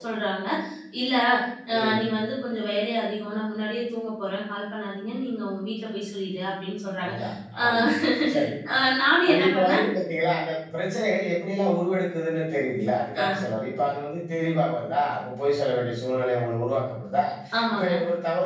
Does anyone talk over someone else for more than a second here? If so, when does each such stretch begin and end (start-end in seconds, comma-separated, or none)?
none